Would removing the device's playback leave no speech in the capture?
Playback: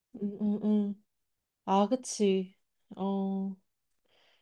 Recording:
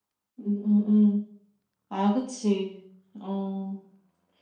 Yes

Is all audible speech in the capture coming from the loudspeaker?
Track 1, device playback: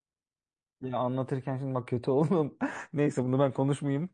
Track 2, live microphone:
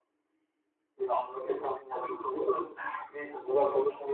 Yes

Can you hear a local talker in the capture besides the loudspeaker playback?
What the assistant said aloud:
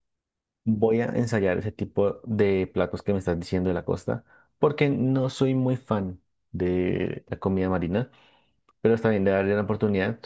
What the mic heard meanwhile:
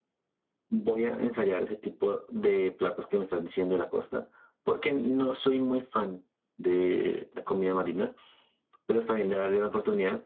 No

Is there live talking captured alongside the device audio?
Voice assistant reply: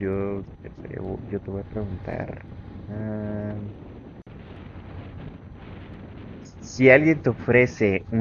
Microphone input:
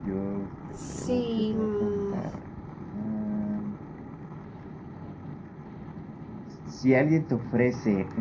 Yes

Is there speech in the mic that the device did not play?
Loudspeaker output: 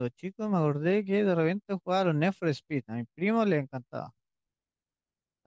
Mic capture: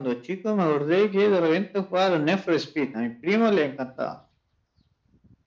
No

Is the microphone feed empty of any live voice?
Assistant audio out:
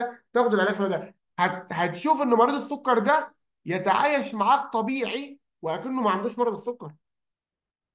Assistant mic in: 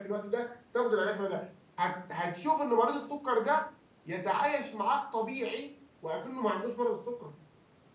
Yes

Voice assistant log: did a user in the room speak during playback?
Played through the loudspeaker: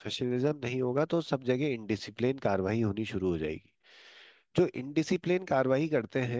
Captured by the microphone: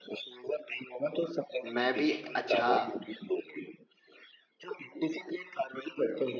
Yes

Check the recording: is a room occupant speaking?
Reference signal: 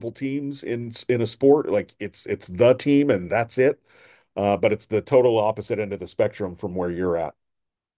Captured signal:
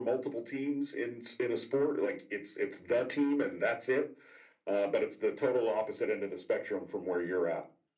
No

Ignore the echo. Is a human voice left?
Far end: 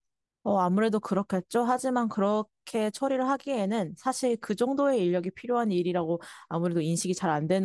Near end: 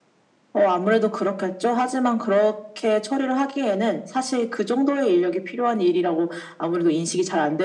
No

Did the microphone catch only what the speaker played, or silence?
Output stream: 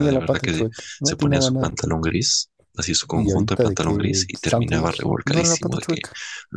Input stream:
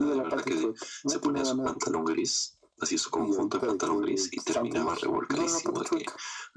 Yes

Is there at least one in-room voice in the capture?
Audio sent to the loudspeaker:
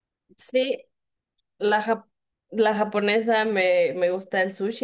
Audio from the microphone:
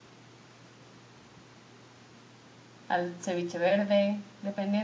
Yes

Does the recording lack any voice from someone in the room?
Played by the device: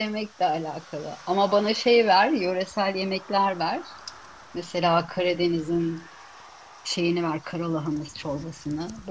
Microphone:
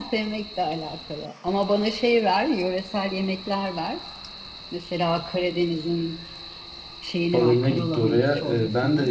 No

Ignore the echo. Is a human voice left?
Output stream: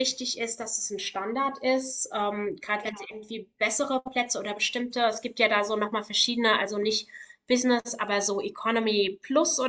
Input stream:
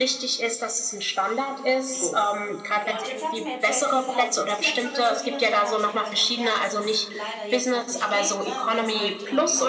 Yes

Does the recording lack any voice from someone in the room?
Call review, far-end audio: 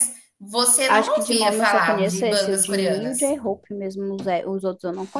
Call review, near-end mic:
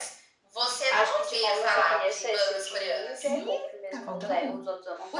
No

